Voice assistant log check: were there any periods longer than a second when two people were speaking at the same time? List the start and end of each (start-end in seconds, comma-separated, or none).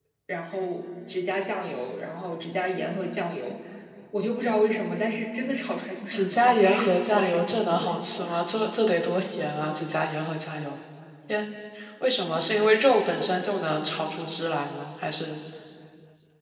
6.1-7.9